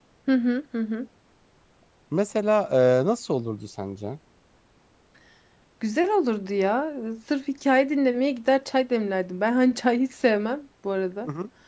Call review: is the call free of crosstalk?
Yes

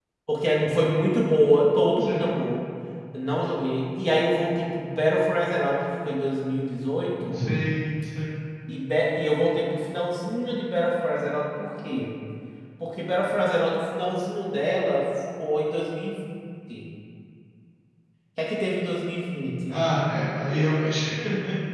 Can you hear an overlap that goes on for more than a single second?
No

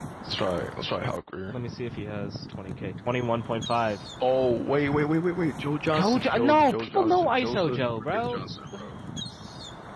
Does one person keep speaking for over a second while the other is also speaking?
Yes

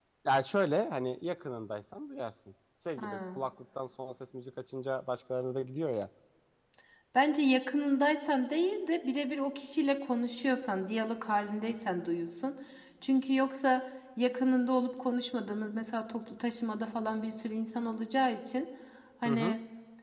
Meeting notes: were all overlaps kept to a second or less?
Yes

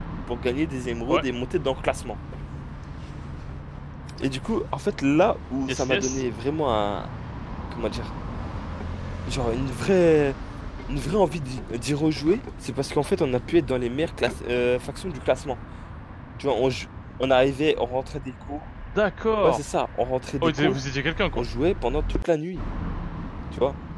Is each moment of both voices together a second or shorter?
Yes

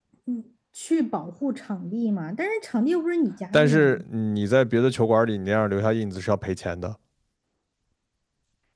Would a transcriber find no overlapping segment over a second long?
Yes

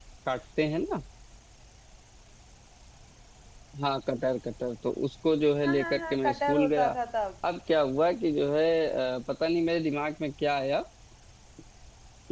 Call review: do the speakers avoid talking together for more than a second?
No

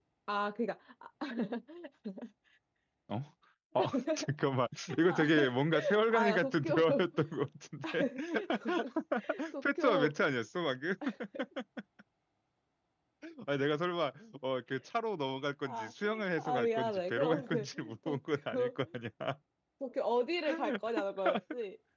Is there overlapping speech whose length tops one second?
Yes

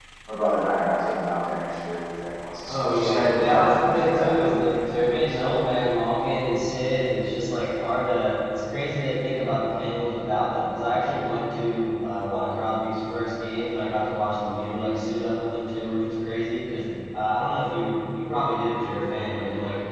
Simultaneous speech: Yes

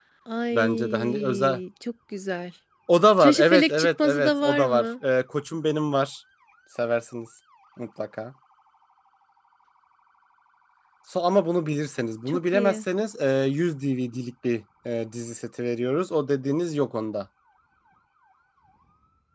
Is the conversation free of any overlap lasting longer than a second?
No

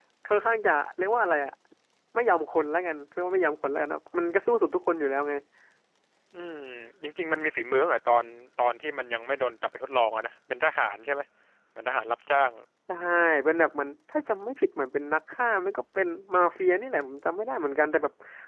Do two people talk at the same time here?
No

